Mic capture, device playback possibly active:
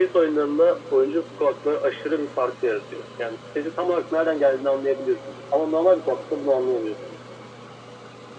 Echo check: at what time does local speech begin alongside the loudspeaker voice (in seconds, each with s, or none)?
none